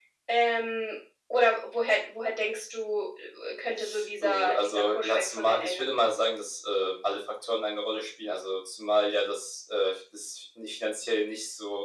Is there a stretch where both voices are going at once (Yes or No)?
Yes